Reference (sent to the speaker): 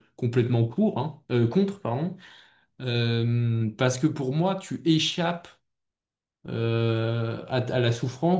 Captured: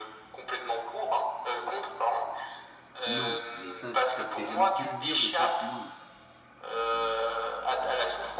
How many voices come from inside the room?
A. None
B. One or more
B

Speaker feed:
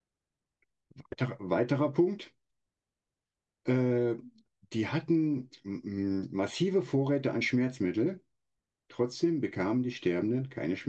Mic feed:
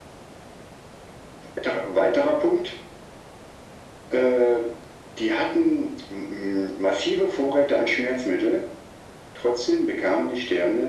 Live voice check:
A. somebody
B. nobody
B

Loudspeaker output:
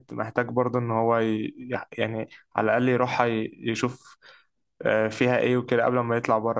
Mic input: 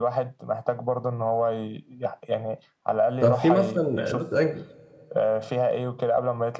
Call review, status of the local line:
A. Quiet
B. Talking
B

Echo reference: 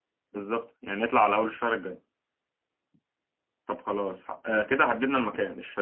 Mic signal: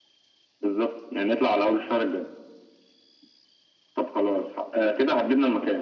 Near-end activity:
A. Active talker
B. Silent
B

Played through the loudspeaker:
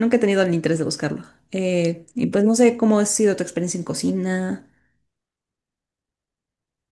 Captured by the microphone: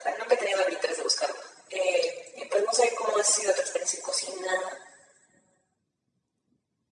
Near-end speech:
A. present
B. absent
B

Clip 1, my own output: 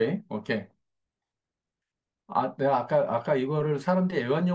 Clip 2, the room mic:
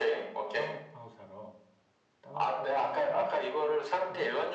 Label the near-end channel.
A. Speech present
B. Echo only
A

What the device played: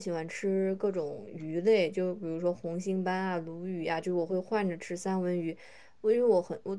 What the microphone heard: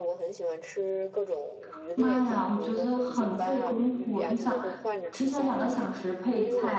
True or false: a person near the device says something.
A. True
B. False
A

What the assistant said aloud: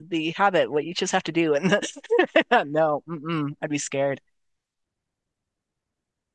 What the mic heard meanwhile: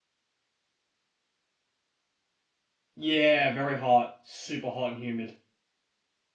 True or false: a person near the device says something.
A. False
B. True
B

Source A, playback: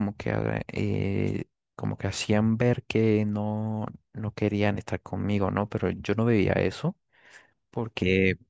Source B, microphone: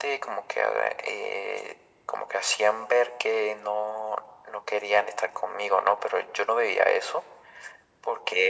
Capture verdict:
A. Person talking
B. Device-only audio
B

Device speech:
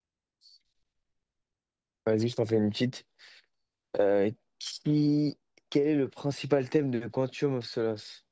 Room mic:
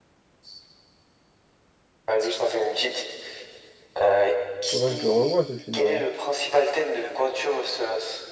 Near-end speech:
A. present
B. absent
A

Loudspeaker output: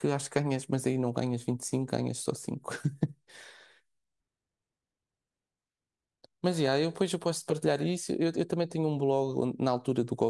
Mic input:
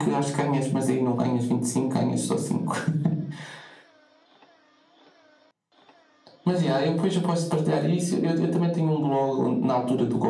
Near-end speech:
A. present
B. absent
B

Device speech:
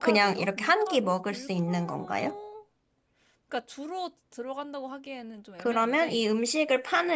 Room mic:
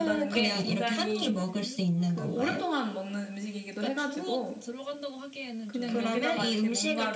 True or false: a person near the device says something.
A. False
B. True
B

